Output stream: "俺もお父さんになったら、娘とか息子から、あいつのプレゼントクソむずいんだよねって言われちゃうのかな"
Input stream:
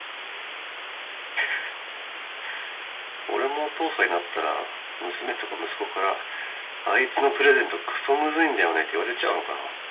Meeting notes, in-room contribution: none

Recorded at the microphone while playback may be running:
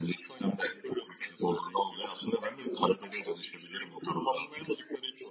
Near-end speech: none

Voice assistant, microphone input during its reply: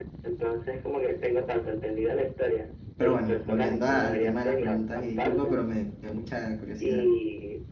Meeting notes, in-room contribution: present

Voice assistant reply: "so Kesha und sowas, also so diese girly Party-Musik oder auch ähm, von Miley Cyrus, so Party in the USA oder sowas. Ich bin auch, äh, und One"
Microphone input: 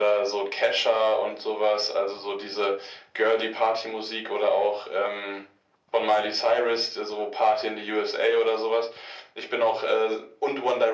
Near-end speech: none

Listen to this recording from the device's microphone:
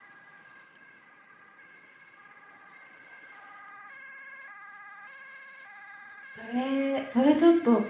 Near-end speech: present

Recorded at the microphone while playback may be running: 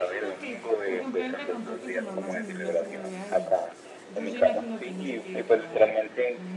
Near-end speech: present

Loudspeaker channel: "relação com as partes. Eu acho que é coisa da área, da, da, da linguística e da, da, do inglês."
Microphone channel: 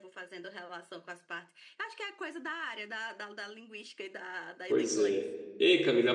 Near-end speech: present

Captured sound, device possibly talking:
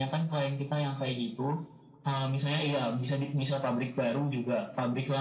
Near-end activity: none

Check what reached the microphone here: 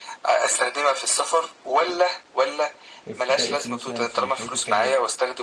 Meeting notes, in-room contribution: present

